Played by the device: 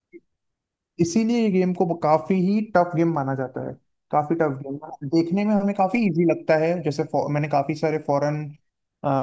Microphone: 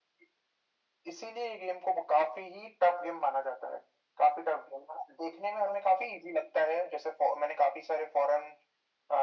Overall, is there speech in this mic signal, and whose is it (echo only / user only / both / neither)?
echo only